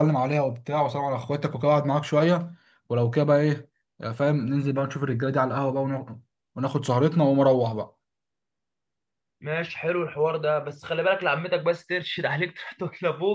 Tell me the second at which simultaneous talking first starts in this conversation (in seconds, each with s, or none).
none